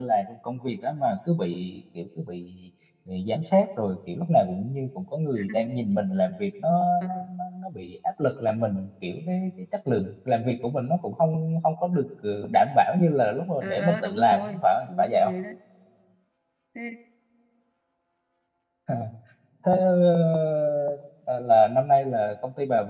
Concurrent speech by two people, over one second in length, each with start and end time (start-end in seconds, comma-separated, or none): 13.6-15.3